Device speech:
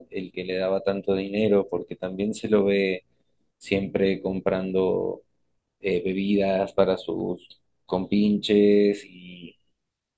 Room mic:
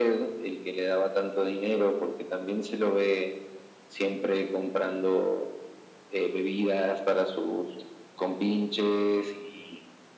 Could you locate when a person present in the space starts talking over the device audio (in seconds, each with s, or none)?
none